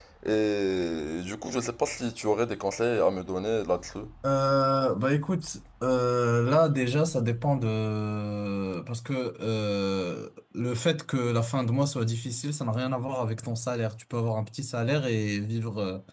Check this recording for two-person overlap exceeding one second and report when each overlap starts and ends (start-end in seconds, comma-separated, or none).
none